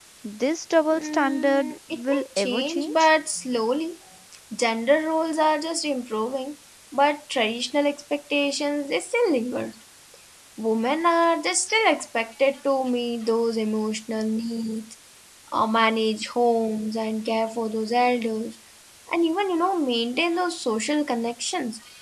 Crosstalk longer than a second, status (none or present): present